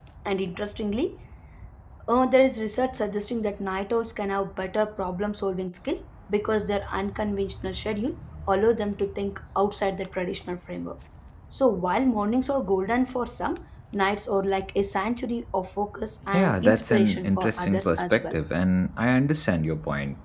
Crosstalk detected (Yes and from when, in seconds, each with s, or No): Yes, from 16.3 s